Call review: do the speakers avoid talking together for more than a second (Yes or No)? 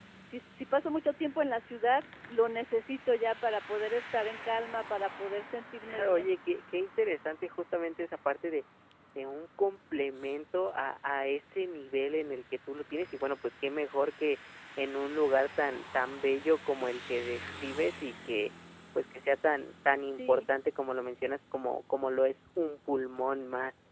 Yes